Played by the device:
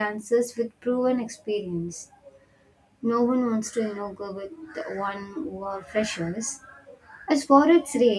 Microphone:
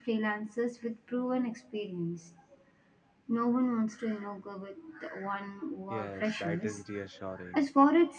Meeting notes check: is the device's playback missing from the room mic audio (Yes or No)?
No